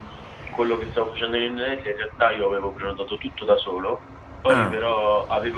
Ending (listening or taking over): listening